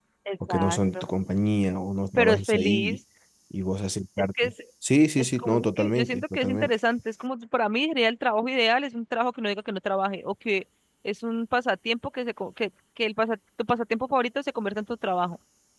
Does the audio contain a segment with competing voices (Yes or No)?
Yes